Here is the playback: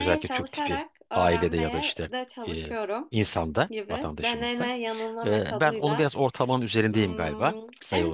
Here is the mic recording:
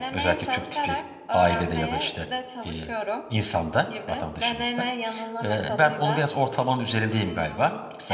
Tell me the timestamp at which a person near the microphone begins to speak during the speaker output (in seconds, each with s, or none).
none